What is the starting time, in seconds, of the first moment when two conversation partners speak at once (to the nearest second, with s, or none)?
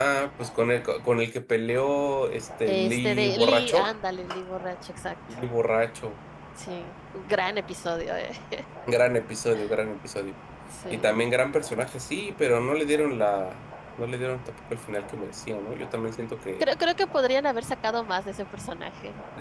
3 s